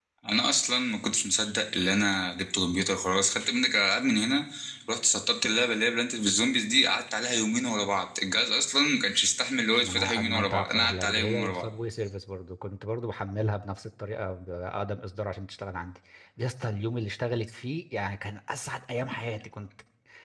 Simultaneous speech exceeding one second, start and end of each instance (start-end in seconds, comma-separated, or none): 9.8-11.7